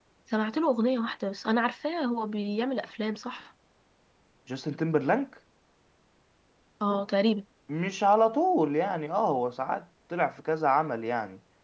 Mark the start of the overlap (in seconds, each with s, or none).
none